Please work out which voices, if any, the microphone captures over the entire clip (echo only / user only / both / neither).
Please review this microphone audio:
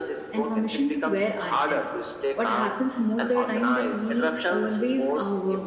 both